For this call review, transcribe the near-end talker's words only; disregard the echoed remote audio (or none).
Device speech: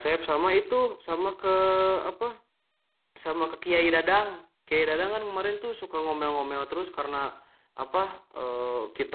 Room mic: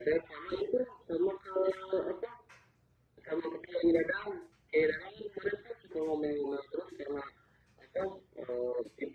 none